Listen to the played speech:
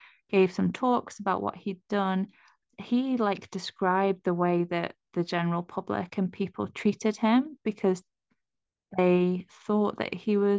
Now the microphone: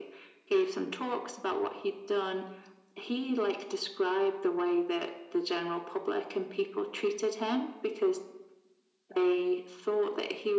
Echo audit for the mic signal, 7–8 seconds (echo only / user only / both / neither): echo only